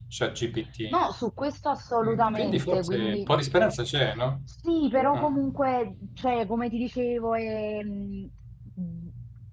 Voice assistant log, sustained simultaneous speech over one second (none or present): present